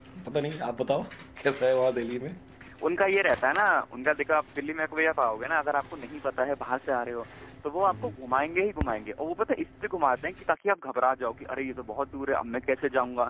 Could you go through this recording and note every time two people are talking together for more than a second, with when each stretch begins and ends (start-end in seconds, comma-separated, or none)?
none